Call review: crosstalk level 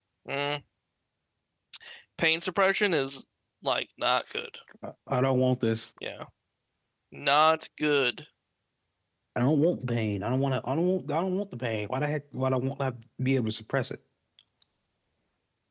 none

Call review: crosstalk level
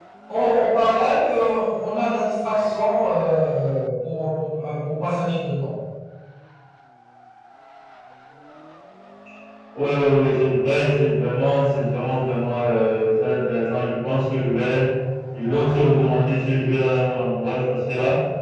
none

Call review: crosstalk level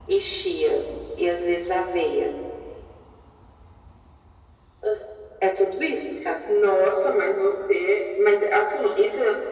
none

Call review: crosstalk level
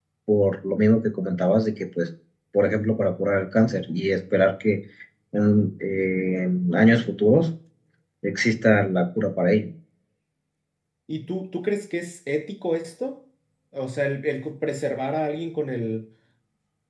none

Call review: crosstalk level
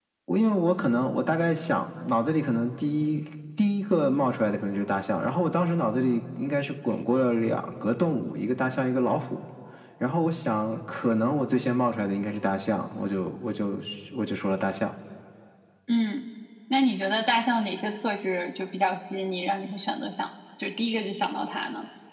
none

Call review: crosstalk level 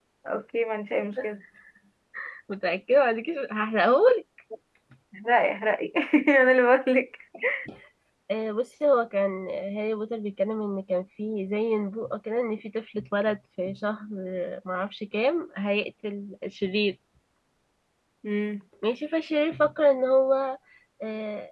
none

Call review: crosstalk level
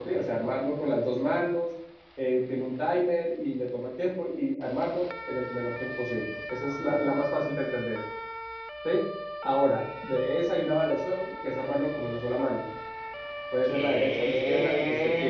present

